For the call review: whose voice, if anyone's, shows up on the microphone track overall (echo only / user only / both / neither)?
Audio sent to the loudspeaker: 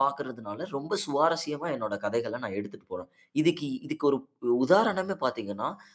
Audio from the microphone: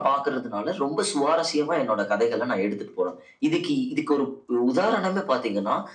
echo only